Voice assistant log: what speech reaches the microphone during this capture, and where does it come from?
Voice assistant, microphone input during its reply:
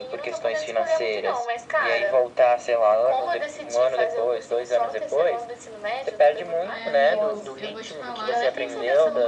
both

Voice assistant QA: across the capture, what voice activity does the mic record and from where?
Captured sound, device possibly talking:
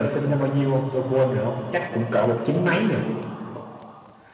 echo only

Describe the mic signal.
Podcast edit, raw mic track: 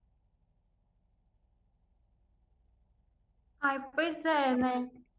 user only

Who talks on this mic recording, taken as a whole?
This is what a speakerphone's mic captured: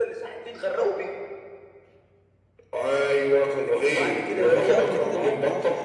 both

